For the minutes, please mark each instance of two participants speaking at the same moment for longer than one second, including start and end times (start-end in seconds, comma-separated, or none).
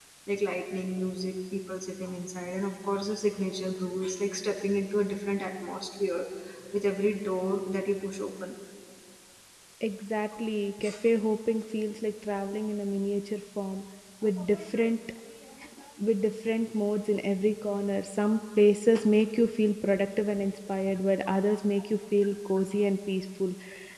none